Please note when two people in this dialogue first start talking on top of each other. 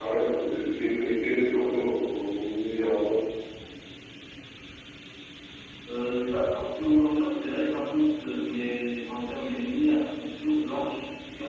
none

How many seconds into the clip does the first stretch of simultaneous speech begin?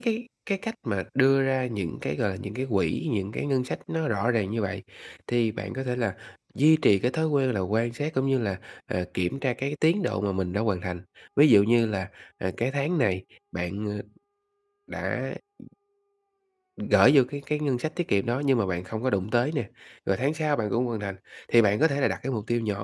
none

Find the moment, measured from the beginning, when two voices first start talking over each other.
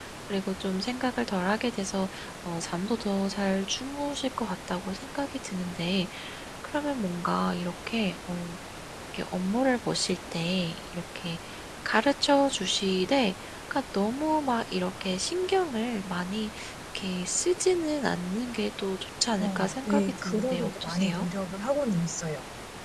19.4 s

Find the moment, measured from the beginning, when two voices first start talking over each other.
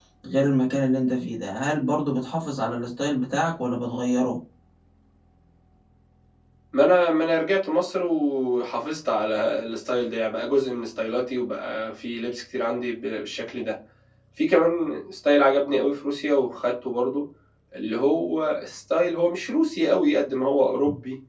none

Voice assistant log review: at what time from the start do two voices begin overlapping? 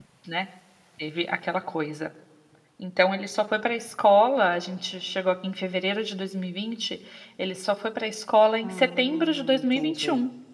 8.6 s

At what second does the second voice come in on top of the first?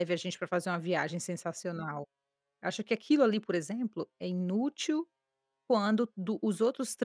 none

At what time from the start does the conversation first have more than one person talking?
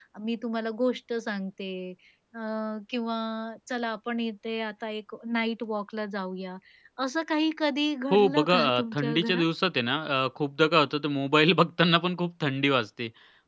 8.1 s

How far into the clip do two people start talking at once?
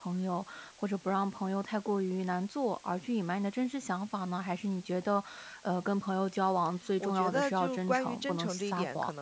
7.0 s

